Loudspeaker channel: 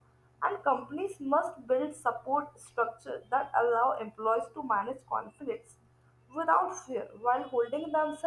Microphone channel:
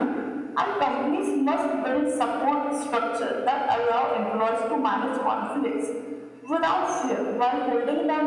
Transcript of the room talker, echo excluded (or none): none